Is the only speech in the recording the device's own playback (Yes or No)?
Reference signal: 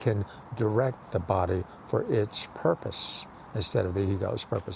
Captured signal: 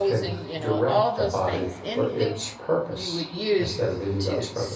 No